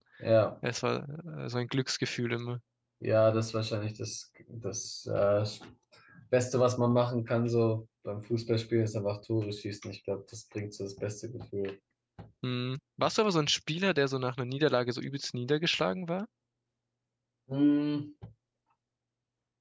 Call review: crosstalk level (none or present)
none